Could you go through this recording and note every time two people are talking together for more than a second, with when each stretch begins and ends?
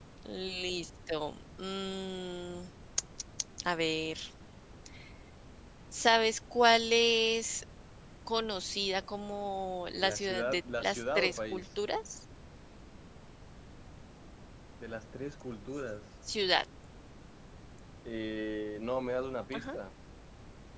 10.0-11.7

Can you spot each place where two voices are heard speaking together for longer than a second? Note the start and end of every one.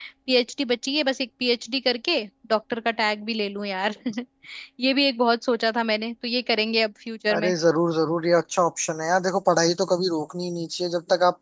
none

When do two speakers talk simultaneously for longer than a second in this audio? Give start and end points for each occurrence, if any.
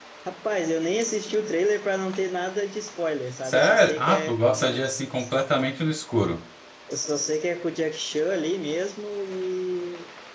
3.4-4.8

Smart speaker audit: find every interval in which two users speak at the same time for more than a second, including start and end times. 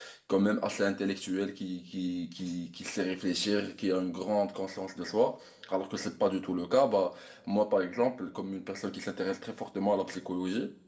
none

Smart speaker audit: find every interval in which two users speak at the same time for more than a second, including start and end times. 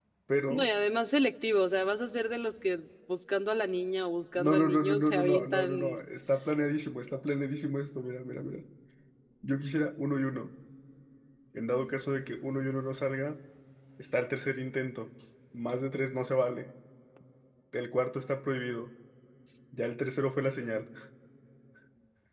4.3-6.0

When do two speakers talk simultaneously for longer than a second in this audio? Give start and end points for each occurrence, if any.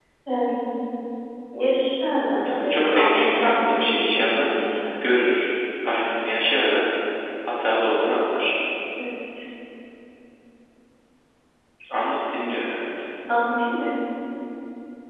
2.4-4.5

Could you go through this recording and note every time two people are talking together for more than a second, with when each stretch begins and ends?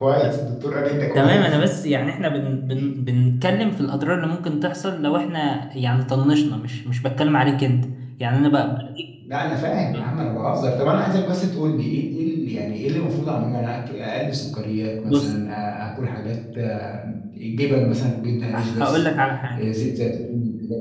none

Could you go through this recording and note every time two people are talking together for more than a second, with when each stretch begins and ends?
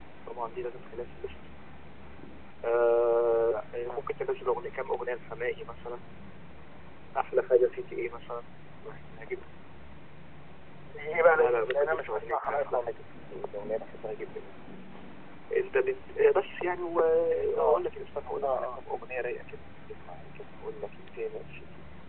11.3-12.9

